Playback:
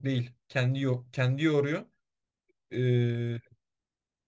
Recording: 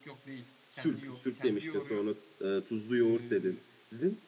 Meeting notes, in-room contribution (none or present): present